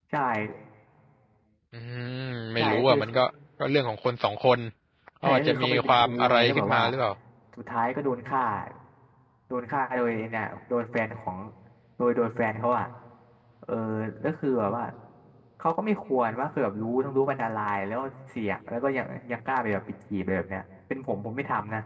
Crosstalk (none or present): present